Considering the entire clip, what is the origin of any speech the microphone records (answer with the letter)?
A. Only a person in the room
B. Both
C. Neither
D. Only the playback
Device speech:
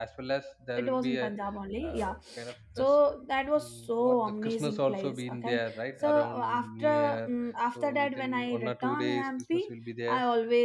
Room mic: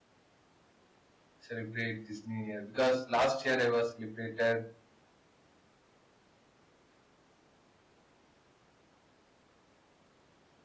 A